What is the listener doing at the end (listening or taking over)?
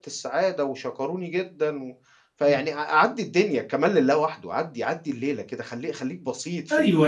taking over